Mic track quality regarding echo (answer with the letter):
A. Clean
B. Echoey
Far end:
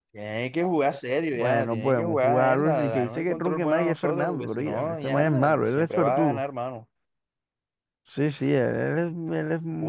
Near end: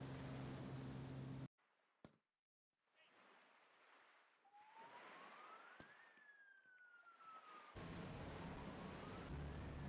A